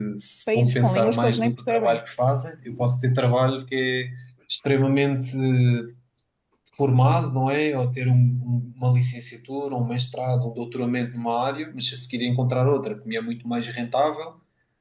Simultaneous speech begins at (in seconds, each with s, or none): 0.5 s